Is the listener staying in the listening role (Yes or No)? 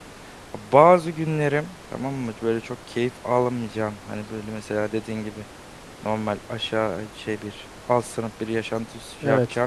Yes